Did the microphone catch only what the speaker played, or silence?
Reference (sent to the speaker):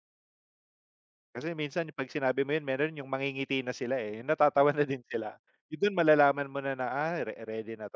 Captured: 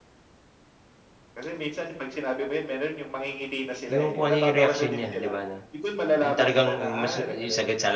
No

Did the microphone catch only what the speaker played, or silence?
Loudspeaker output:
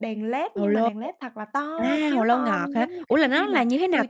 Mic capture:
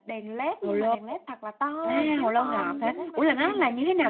No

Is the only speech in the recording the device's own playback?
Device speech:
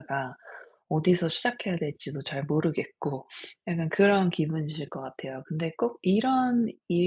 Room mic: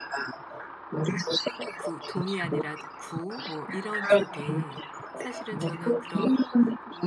No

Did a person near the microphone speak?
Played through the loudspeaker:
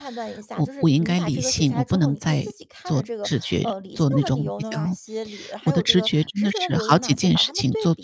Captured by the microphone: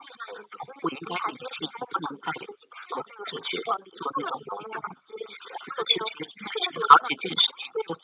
No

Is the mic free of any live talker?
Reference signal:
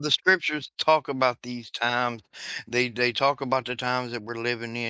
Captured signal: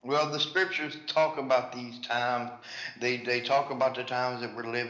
Yes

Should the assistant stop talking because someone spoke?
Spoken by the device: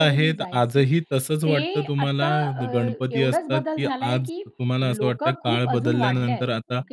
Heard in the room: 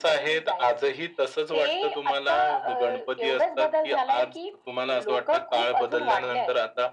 No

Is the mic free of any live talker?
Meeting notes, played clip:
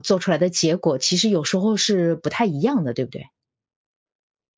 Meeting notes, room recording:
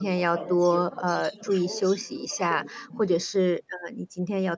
No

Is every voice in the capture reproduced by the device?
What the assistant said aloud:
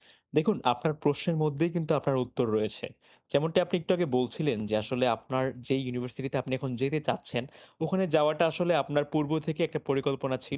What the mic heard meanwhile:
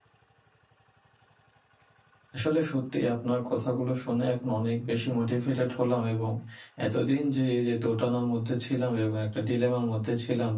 No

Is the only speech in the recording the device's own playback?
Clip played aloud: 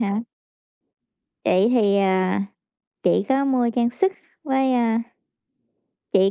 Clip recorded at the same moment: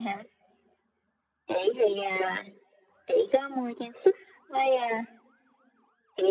Yes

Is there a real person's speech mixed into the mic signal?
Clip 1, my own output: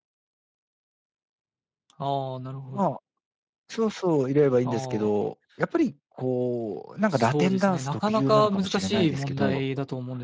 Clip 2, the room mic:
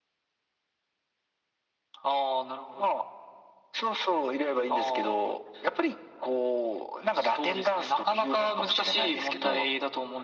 No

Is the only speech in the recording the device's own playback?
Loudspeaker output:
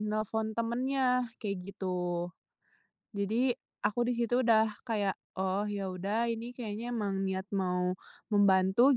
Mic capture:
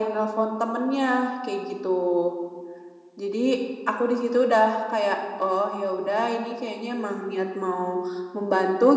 Yes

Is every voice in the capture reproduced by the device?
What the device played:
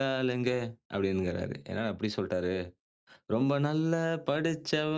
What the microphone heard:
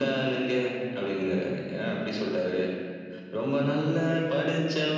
No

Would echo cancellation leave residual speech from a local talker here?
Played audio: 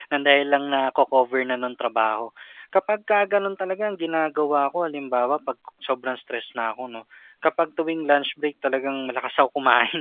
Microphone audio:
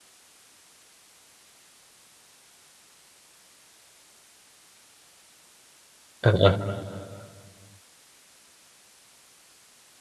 Yes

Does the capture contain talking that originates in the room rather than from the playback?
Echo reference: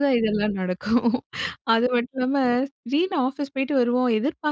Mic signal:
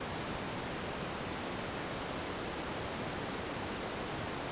No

